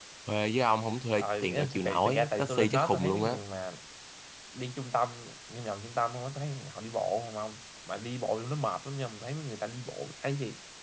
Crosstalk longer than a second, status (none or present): present